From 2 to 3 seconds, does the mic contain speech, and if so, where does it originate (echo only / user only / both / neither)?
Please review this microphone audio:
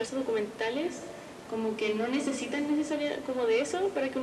echo only